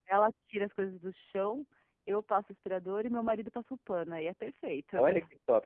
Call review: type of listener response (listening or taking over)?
taking over